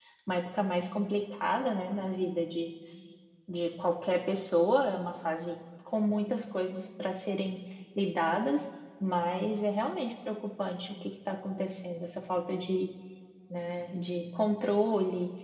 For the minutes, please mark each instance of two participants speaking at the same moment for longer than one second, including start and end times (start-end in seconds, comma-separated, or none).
none